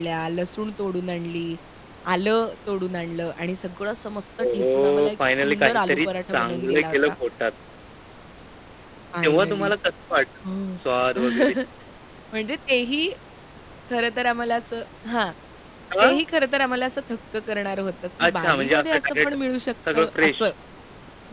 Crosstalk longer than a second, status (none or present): present